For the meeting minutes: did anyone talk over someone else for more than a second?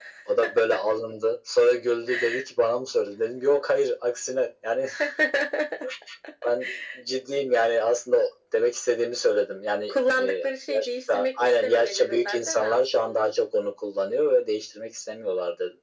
Yes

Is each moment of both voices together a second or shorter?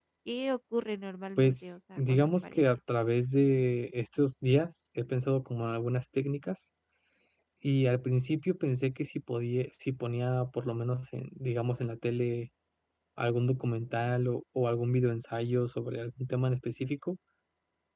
No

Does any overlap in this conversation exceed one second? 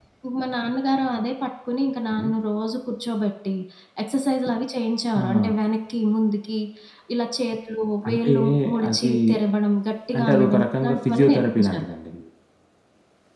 Yes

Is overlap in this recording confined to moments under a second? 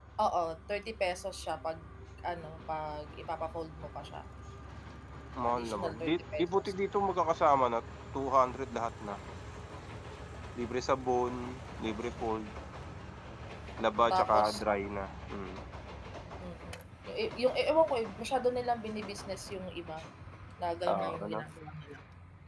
No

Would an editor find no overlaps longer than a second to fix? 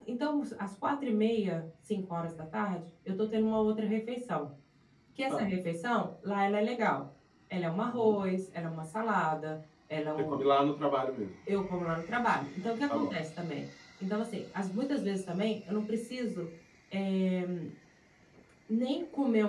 Yes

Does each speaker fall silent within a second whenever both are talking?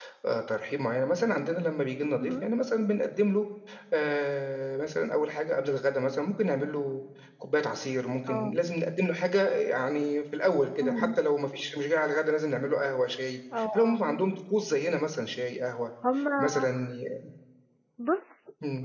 Yes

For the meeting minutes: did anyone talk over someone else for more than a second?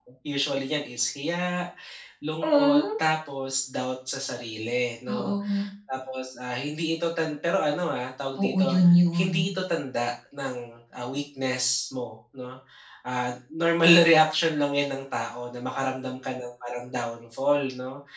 No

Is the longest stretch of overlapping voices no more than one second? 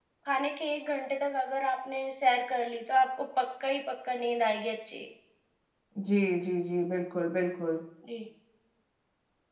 Yes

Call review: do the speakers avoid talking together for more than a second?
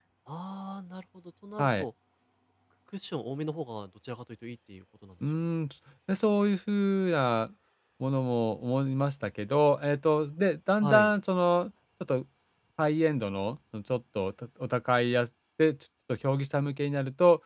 Yes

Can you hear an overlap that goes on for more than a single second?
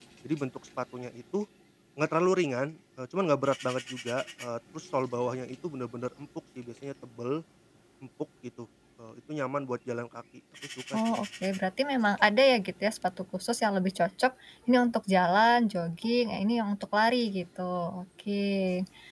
No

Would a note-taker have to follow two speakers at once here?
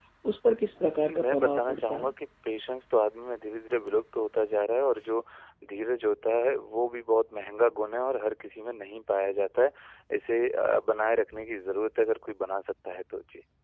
Yes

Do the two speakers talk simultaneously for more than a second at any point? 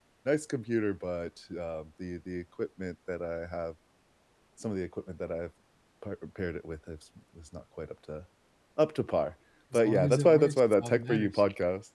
Yes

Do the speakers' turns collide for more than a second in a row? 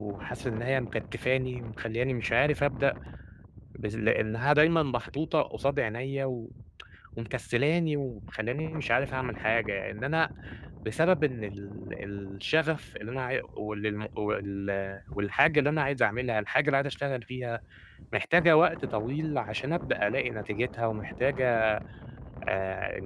No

